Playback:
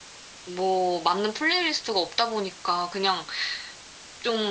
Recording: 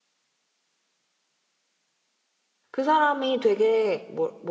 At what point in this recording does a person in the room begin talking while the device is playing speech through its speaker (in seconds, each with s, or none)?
2.7 s